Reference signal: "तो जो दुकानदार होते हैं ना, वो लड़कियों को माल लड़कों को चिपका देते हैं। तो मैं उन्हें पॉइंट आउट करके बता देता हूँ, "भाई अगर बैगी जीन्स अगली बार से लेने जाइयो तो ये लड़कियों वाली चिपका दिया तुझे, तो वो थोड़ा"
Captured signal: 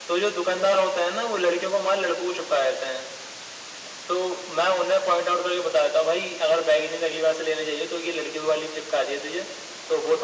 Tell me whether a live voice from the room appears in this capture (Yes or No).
No